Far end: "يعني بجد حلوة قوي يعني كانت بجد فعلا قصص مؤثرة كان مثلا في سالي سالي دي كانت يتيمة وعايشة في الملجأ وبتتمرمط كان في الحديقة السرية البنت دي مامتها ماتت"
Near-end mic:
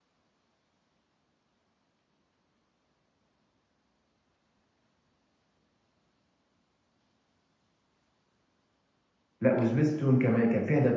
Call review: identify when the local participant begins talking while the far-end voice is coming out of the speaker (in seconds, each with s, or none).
9.4 s